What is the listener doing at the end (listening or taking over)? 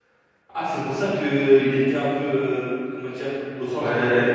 taking over